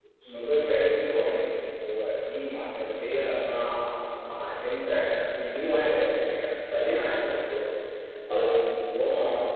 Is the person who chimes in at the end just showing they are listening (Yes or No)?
Yes